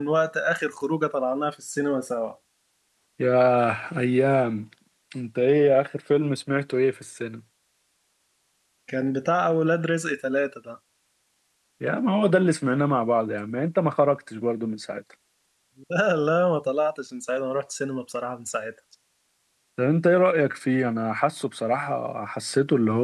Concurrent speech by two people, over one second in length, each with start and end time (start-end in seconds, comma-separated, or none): none